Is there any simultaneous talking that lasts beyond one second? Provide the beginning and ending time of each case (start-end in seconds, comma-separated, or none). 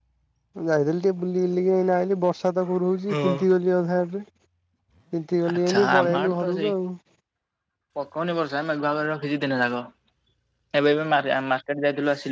5.5-6.7